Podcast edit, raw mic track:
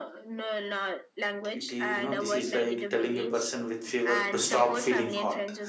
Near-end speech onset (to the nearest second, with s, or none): 1 s